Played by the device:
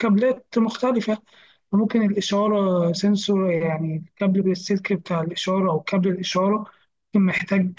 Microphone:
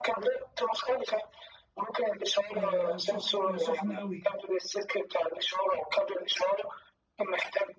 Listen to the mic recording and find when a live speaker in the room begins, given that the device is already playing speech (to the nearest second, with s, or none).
3 s